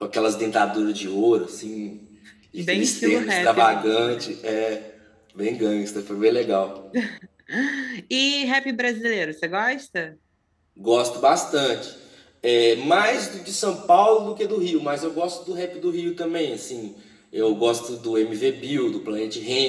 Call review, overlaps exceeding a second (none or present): present